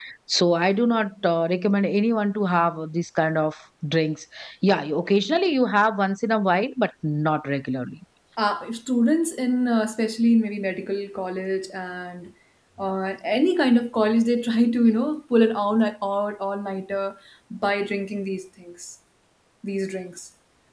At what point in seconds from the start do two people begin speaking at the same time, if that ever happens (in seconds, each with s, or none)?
none